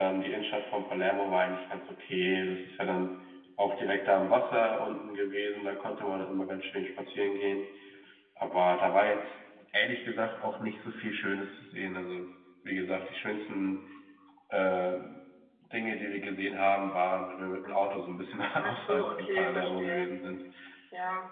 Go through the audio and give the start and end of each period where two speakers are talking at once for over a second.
18.6-20.1

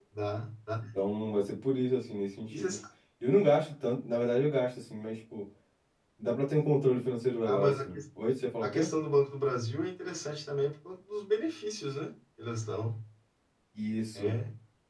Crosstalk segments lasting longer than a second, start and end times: none

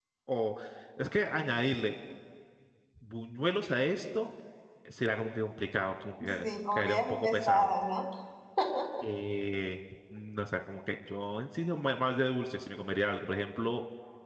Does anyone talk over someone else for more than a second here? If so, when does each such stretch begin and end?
6.3-7.7

